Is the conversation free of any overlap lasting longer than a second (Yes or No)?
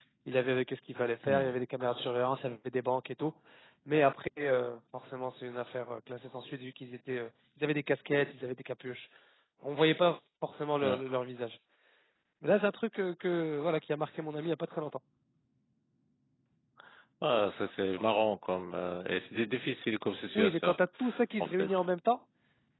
Yes